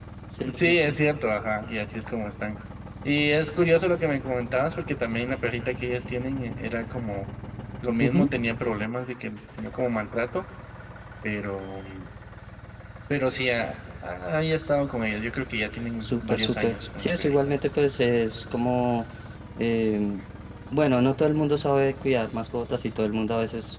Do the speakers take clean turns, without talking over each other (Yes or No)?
No